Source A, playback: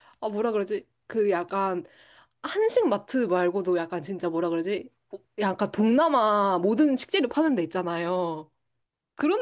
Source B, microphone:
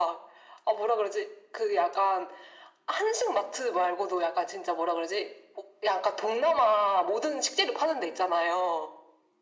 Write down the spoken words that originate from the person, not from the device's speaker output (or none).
none